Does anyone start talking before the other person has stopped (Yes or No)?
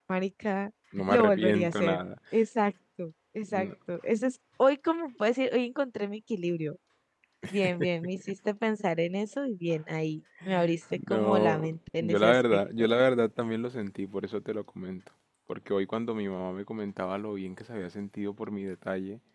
Yes